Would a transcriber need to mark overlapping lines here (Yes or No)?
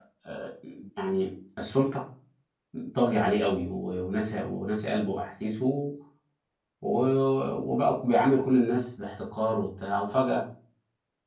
No